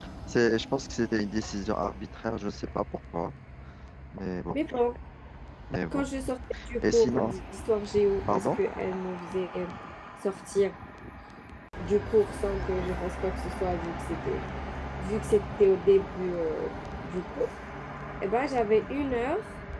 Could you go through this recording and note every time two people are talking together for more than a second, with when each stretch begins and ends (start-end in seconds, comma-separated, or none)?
none